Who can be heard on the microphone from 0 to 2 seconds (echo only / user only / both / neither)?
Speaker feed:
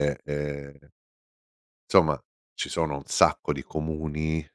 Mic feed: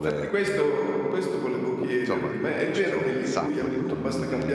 both